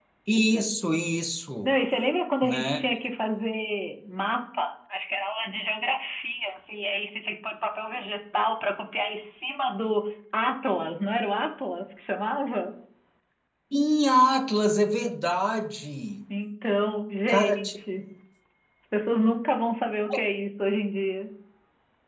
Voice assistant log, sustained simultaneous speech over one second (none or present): none